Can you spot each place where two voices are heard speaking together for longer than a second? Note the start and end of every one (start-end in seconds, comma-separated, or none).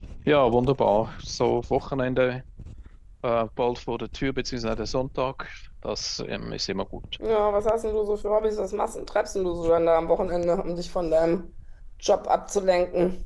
none